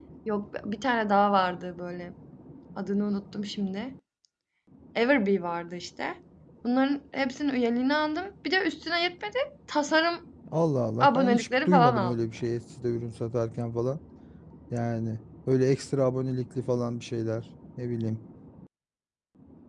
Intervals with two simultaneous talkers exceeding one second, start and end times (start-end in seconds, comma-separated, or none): 11.0-12.5